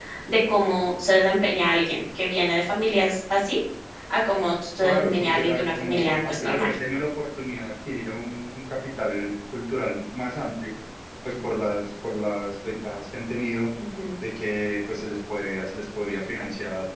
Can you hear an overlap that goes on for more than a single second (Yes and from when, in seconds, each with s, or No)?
Yes, from 4.8 s